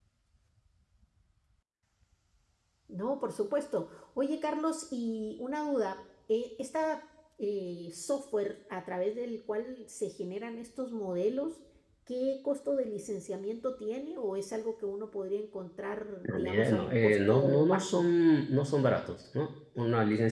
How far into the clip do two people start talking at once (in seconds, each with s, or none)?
16.2 s